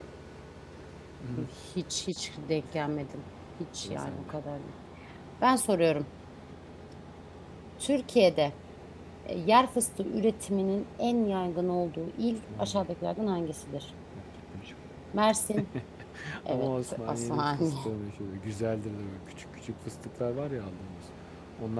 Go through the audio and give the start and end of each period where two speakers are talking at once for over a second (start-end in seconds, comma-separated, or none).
16.5-17.7